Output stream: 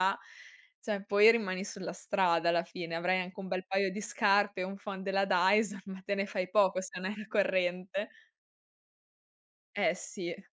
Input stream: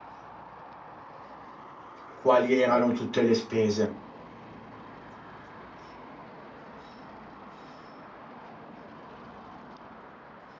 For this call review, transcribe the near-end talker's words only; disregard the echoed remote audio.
Quali erano tutte le spese?

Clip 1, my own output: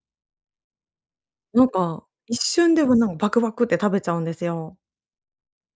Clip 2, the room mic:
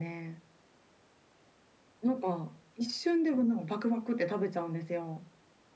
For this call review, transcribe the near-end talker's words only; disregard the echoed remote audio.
none

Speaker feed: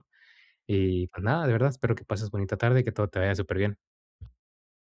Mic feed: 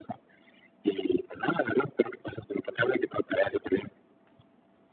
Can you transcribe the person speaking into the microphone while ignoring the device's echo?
none

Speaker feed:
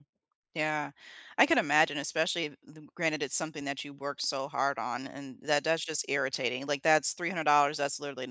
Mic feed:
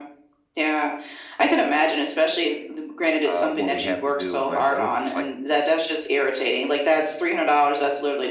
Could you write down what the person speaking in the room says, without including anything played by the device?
"Uh, what we have to do" my brother's just like,

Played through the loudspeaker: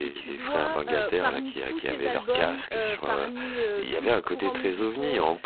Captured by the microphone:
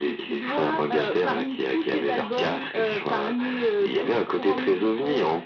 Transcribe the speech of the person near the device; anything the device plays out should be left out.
none

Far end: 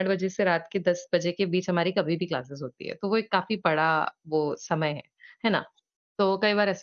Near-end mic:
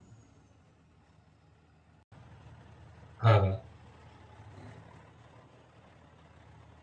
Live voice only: हाँ।

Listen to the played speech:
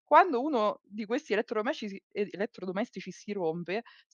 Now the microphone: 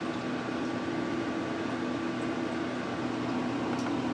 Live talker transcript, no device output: none

